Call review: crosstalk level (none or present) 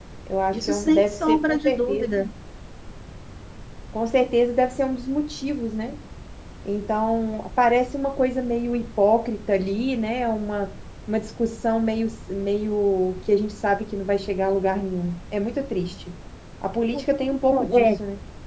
present